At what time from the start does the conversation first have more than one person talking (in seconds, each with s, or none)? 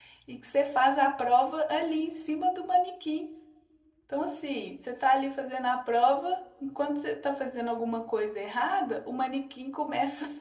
none